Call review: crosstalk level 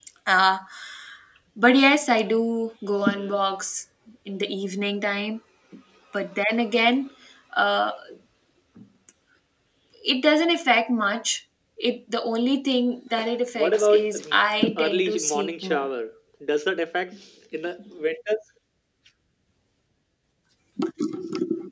present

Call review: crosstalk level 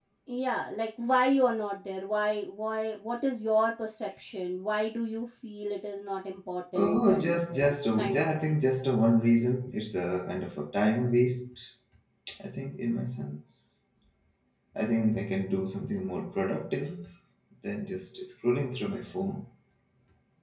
present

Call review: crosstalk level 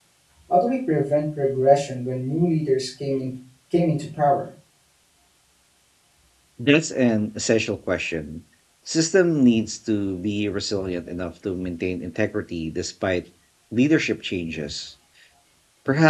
none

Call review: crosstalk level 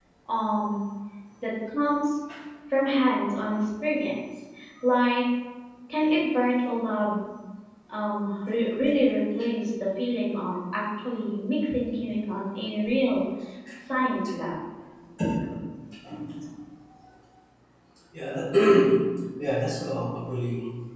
none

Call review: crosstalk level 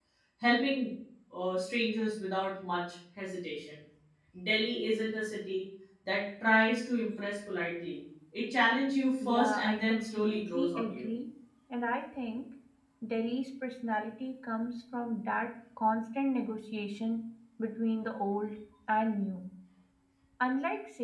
present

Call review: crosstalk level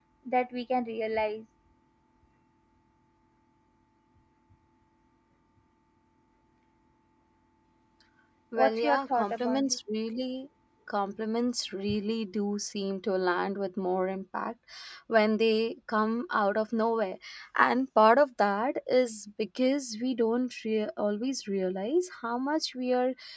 present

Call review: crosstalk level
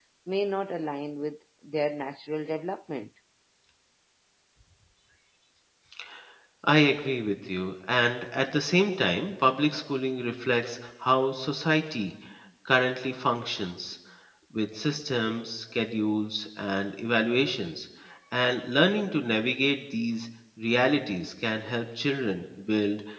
none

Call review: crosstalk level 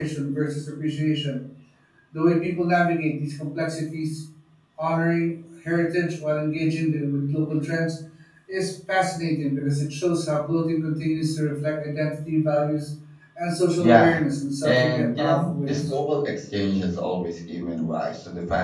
present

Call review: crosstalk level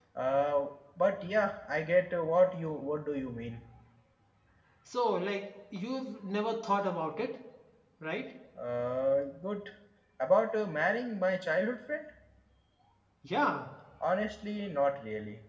none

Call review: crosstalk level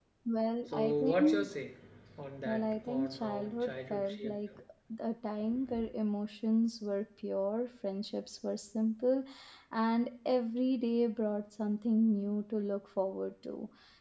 present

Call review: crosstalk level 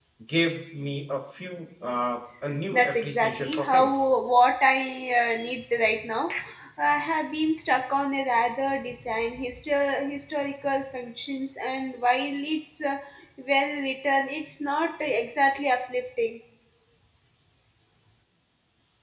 present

